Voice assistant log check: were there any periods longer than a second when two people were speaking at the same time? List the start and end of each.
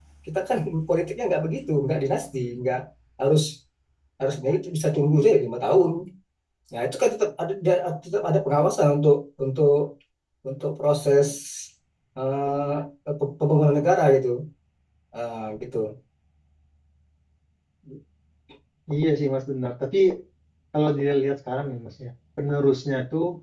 none

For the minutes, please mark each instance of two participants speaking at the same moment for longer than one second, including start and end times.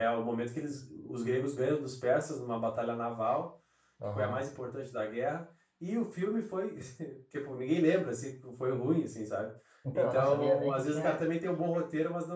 9.9-11.2

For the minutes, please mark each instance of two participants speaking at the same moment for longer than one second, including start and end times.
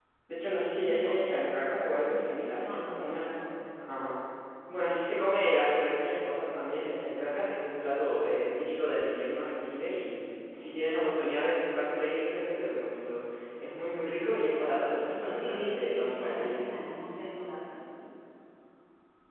15.1-16.6

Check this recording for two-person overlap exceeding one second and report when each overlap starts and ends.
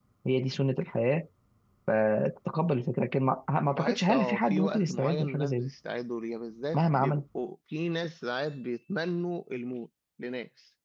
3.7-5.7

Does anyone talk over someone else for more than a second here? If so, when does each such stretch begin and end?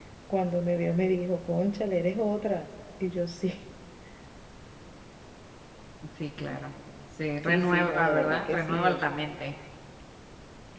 7.5-9.0

